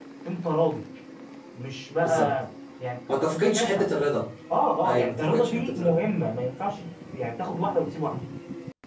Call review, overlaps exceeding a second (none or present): present